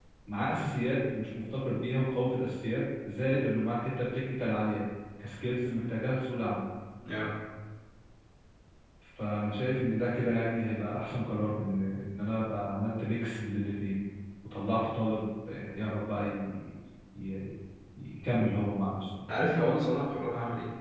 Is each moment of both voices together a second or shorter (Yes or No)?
Yes